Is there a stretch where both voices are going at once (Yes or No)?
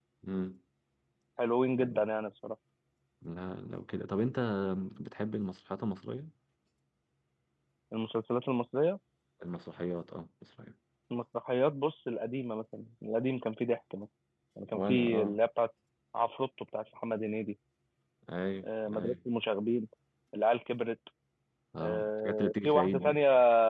Yes